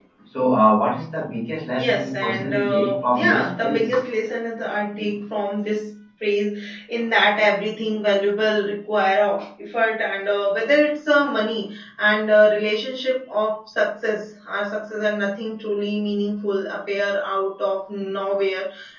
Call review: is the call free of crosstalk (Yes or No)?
No